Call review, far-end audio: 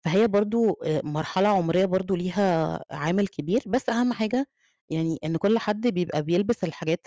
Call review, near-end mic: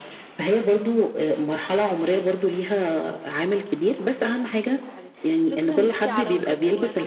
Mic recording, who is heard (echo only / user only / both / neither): both